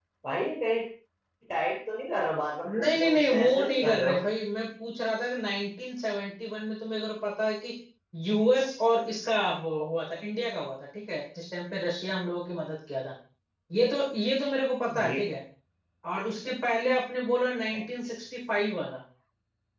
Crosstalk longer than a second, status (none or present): present